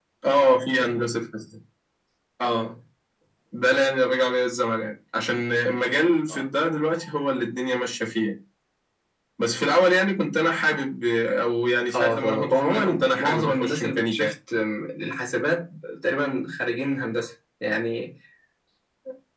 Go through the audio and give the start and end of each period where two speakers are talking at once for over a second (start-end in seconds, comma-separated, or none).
11.9-14.3